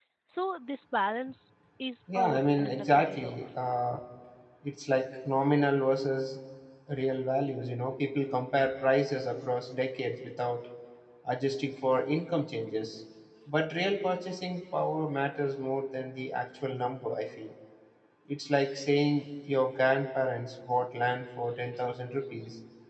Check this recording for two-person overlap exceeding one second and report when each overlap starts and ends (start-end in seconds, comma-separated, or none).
2.1-3.4